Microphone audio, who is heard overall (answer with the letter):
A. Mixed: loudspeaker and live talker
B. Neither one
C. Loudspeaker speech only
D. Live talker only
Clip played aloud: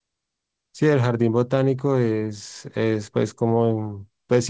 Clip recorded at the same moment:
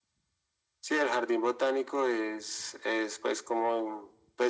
C